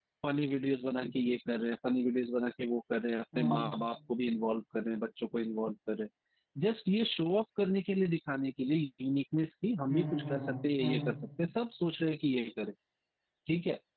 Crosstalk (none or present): present